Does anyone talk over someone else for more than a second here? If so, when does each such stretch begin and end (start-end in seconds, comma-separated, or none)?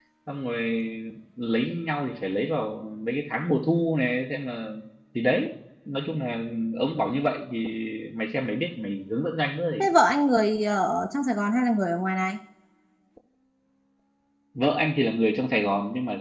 none